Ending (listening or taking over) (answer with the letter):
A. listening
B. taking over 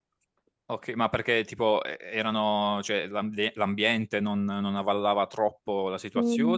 B